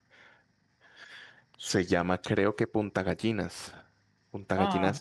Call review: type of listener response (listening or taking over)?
taking over